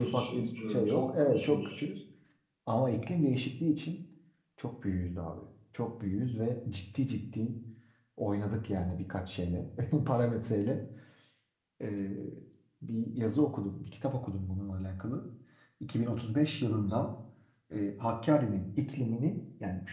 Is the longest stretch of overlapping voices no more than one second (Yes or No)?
No